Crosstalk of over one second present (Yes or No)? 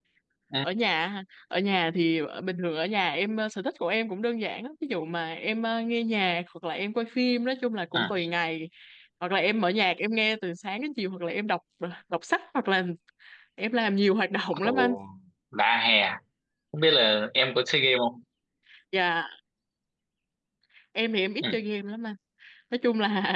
No